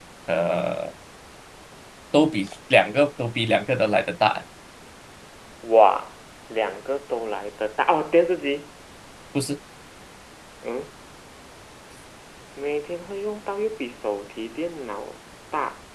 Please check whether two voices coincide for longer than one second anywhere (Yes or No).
No